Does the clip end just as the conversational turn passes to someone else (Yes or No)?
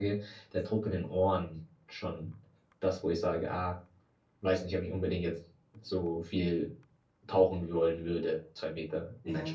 Yes